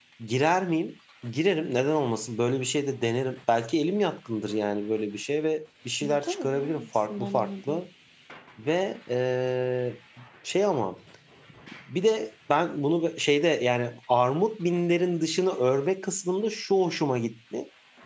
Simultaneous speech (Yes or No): Yes